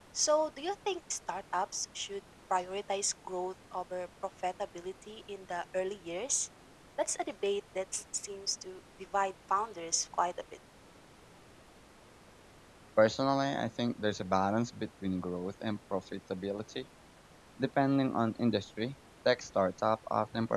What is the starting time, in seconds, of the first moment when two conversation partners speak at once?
none

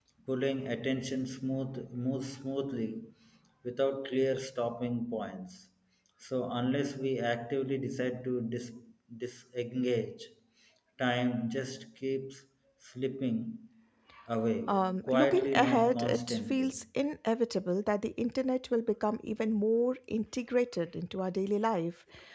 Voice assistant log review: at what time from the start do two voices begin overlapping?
14.7 s

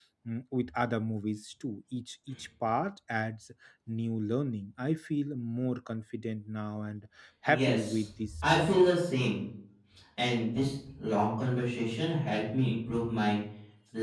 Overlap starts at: 7.5 s

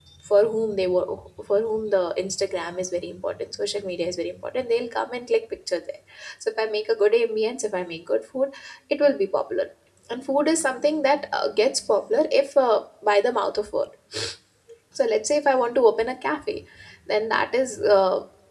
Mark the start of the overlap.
none

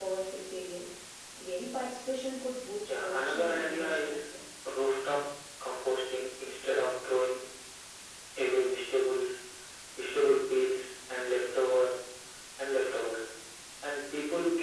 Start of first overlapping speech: 2.9 s

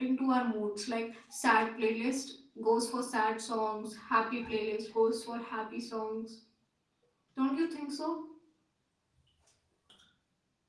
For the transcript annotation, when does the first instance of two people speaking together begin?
none

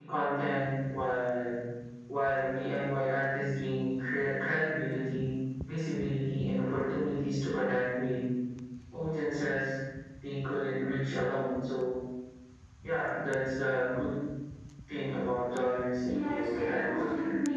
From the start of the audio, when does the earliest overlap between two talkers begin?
16.1 s

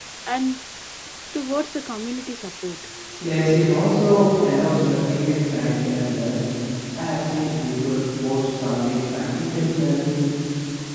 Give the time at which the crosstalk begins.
none

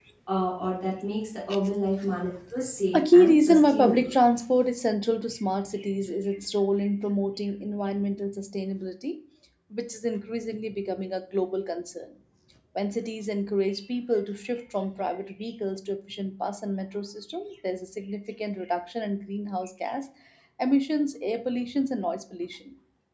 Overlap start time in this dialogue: 2.9 s

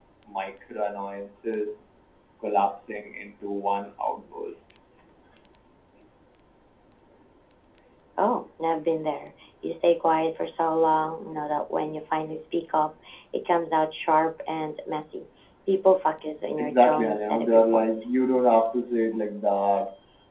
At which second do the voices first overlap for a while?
16.6 s

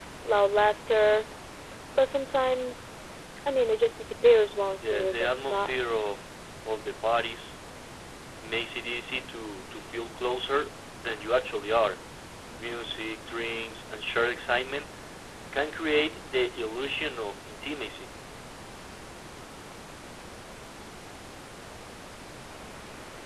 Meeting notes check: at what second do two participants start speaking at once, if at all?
4.8 s

